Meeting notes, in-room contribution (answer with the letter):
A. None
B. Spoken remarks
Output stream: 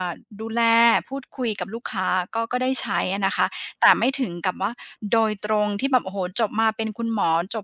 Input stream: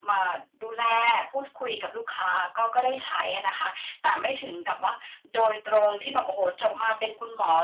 A